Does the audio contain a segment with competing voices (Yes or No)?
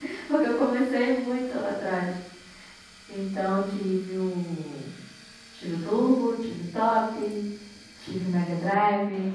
No